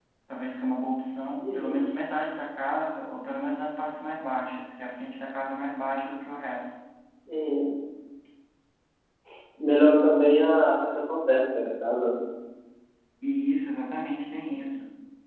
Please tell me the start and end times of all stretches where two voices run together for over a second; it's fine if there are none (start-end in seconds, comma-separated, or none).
none